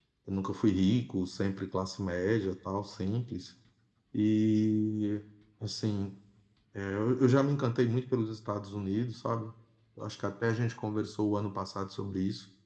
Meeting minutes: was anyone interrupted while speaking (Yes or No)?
No